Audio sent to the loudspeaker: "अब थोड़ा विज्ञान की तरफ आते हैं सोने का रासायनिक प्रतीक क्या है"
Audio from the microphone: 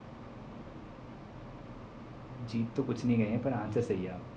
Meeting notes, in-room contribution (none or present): present